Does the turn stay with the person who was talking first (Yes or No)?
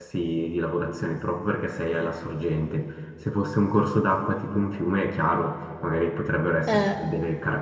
Yes